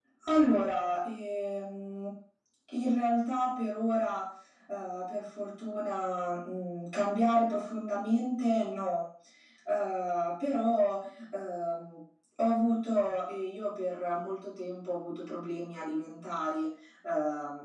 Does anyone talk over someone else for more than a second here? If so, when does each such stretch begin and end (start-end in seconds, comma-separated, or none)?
none